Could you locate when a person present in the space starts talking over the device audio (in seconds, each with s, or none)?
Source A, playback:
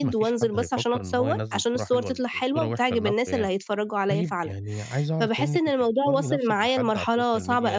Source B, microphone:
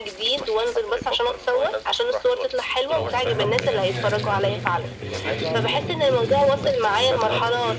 3.0 s